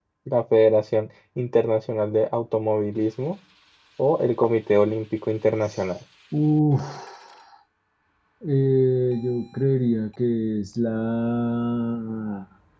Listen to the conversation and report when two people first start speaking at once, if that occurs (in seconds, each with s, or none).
none